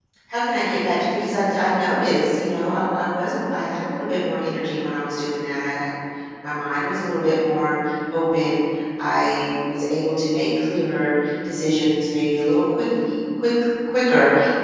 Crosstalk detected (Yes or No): No